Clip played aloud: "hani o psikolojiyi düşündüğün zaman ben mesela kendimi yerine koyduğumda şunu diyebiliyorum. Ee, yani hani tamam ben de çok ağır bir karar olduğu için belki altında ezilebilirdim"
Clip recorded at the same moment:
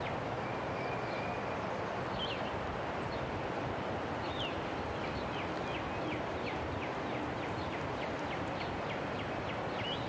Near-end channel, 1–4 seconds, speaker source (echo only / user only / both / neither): neither